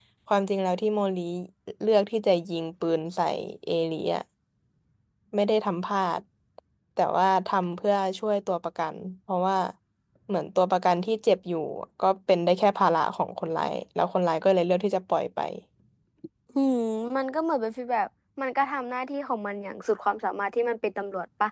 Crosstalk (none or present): none